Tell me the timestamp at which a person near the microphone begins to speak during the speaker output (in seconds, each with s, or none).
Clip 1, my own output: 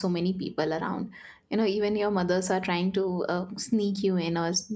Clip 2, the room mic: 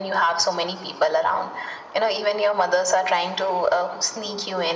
none